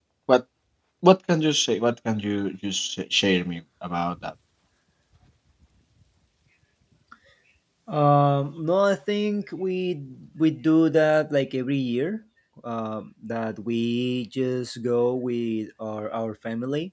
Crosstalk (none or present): none